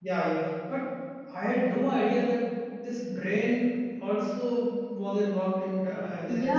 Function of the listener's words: taking over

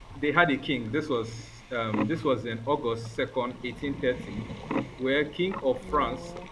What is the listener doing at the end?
listening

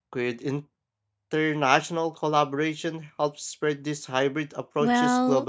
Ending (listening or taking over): taking over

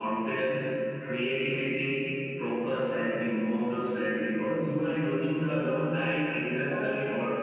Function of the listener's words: taking over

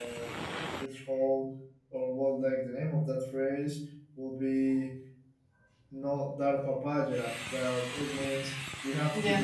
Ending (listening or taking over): listening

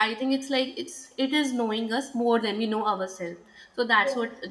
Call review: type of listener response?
listening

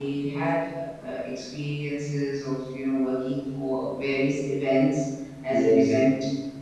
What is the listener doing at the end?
listening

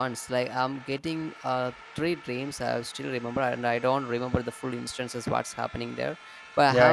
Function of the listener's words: listening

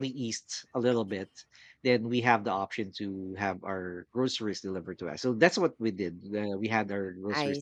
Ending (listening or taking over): listening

